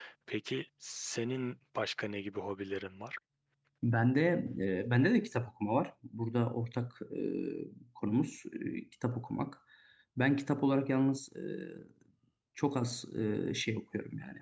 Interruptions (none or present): none